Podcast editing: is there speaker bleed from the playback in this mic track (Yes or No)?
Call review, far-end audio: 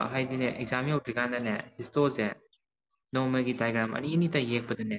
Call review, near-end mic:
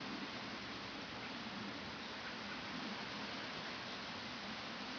No